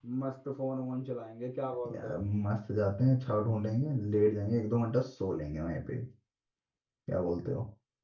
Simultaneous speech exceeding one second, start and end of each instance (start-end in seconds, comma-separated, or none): none